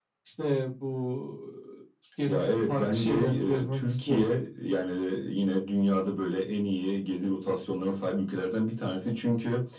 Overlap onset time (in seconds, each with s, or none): 2.3 s